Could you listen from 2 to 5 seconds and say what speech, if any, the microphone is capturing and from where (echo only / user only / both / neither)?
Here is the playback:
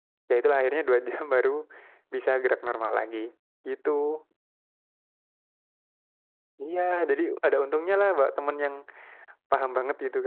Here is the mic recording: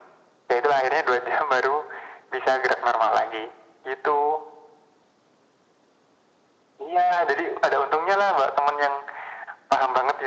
echo only